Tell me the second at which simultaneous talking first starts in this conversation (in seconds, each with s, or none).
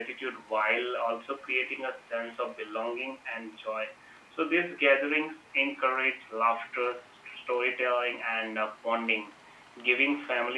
none